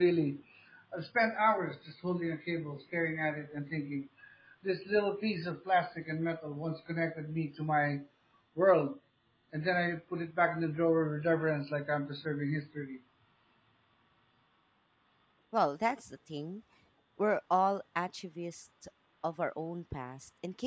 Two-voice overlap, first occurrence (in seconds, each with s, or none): none